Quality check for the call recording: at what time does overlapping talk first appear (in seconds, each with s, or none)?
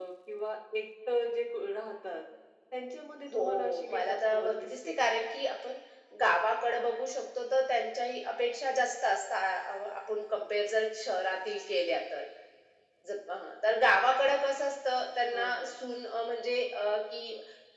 3.3 s